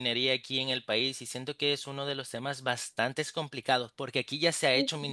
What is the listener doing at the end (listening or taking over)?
listening